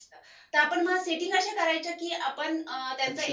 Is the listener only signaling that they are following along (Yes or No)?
Yes